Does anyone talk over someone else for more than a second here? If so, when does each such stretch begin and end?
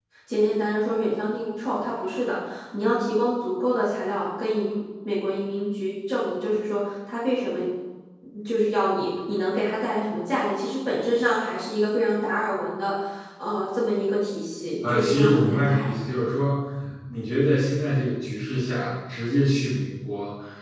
14.8-16.2

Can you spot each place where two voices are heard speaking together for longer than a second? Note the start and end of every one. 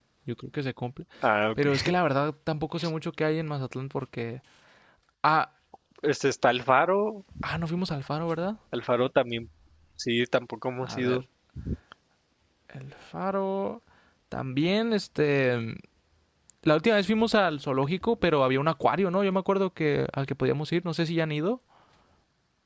none

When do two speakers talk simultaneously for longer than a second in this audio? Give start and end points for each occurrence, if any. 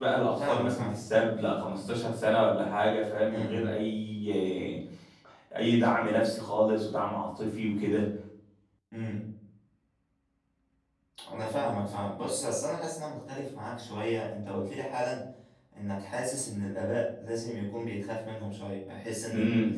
none

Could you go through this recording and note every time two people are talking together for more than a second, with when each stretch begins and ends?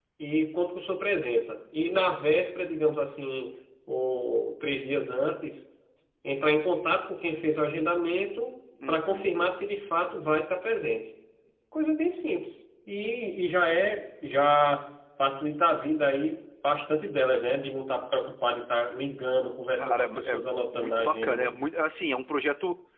19.8-21.5

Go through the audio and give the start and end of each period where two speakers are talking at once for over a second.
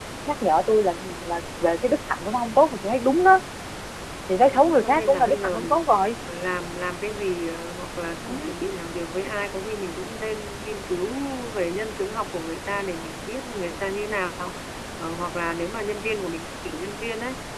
4.5-5.8

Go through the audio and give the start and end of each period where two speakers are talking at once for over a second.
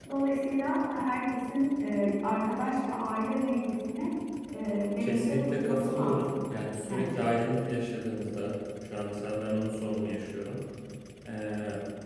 5.0-6.3

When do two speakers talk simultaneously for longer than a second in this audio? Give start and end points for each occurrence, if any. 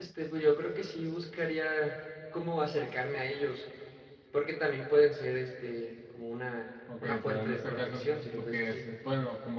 7.0-8.8

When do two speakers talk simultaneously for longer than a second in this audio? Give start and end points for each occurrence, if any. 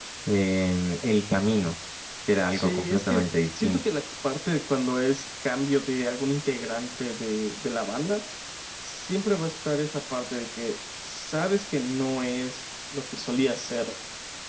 2.5-3.8

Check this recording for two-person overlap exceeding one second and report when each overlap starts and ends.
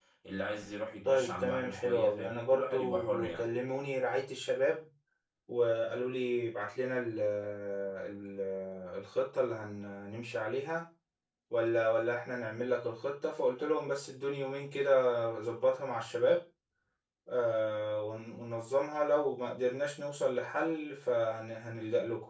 1.0-3.5

